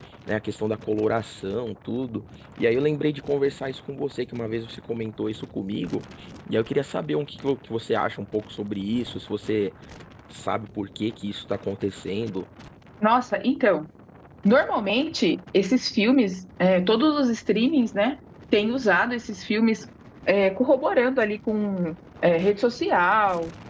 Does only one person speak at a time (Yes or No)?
Yes